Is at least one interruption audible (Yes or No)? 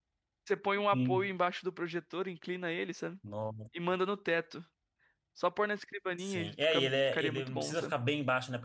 Yes